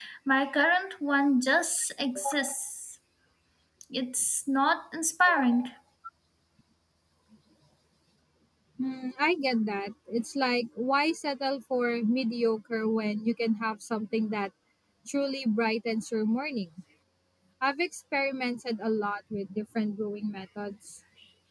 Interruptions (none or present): none